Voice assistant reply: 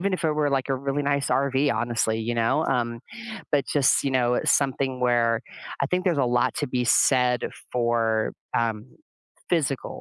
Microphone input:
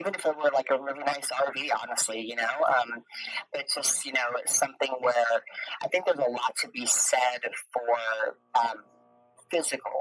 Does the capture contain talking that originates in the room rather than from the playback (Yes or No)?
No